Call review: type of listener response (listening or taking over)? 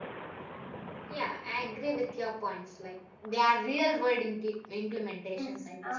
taking over